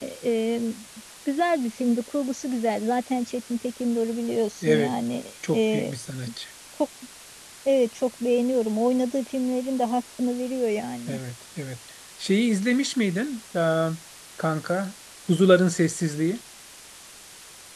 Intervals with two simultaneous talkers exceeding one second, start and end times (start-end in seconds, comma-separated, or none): none